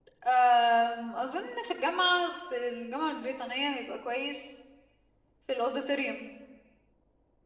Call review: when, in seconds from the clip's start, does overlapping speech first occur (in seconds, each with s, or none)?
none